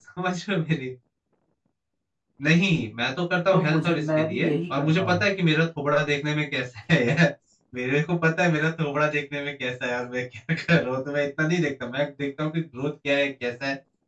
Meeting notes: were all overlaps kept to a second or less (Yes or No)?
No